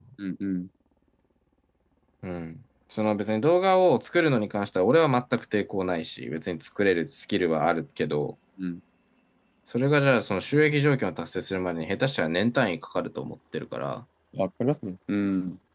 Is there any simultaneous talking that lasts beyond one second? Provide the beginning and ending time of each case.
none

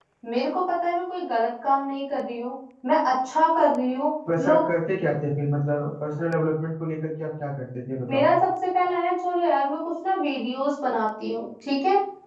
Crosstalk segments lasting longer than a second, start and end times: none

